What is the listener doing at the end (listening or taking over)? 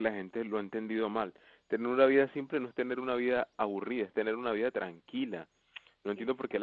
listening